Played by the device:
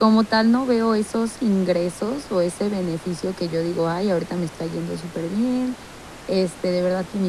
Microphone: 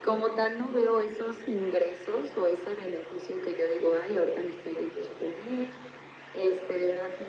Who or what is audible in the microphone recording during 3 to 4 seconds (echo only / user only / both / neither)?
echo only